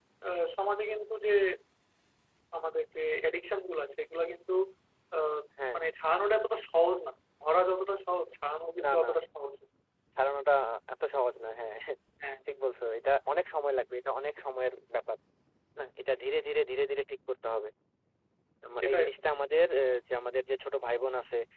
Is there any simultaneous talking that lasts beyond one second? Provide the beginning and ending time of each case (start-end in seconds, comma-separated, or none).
none